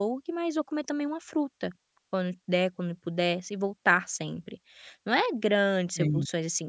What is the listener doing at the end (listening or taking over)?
listening